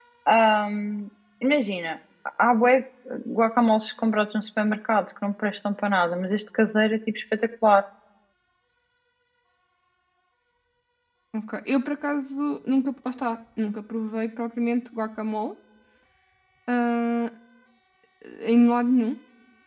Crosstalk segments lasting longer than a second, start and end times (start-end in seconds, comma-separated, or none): none